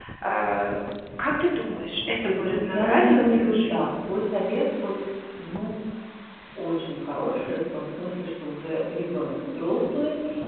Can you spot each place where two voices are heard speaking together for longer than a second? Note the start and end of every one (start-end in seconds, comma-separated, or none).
2.2-4.0